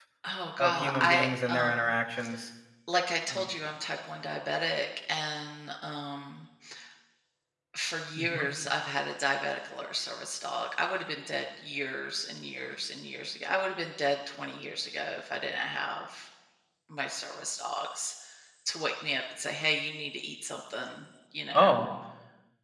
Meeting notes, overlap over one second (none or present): present